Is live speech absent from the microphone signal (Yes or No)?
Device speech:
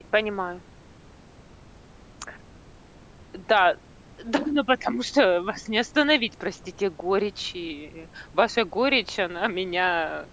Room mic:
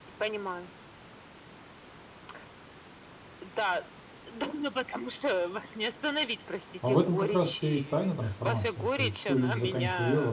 No